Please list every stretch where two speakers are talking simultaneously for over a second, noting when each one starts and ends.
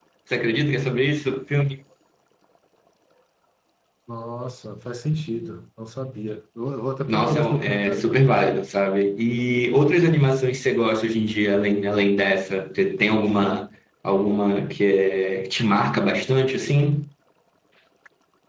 7.1-8.4

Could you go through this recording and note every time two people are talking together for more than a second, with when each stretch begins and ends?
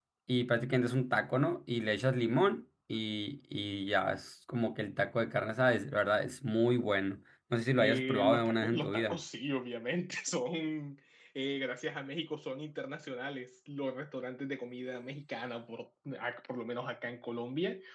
7.8-9.2

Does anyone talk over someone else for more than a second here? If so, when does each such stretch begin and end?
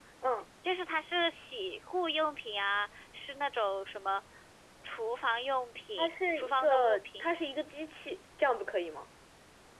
6.0-7.3

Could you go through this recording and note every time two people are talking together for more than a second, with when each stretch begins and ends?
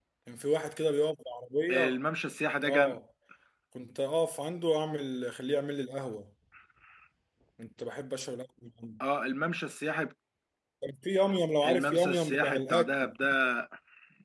11.7-13.1

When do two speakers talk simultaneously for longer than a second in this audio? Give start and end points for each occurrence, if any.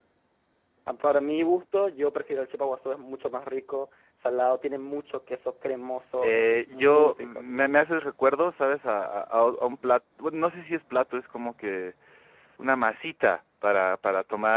6.2-7.4

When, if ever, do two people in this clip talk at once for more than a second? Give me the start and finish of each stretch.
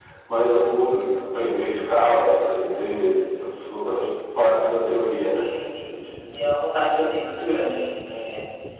none

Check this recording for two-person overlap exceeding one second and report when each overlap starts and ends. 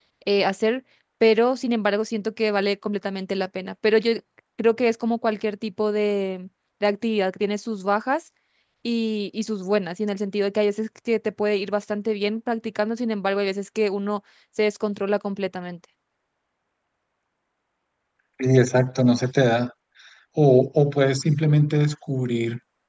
none

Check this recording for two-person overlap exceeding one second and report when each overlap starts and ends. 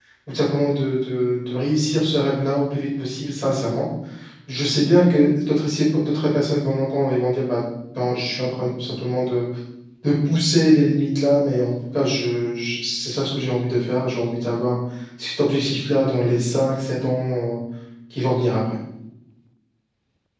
none

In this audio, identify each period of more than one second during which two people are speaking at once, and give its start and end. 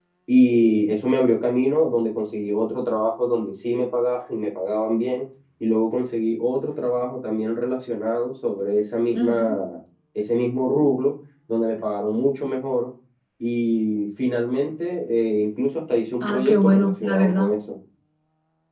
16.2-17.5

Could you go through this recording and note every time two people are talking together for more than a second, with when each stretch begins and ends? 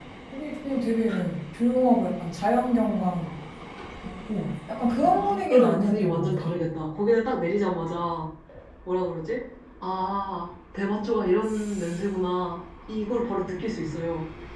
5.0-6.6

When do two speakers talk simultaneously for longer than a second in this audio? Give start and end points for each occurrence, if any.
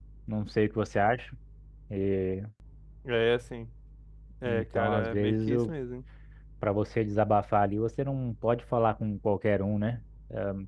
4.5-5.7

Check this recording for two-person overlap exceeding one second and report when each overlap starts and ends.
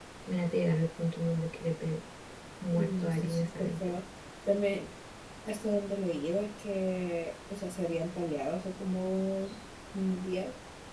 2.8-4.0

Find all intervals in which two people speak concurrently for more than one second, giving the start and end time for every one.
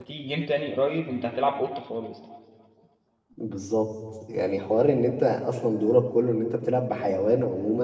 none

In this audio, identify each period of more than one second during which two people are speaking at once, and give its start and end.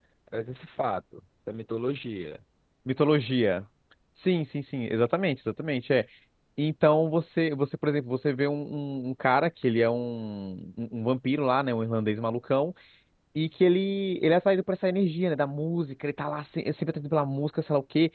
none

